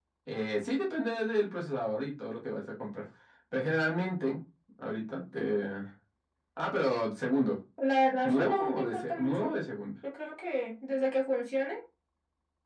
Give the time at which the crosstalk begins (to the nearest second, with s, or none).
8 s